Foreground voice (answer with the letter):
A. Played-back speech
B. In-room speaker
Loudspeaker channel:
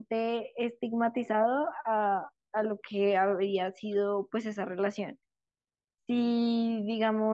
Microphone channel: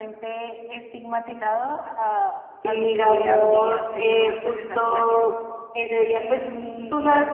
B